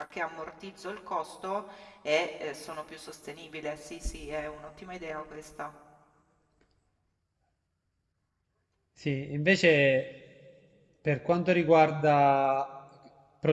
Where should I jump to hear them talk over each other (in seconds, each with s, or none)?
none